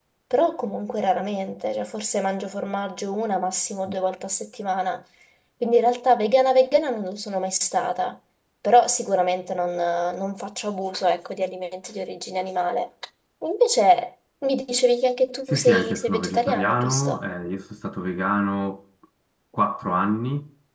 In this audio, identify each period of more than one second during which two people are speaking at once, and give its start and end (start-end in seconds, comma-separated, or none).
15.5-17.2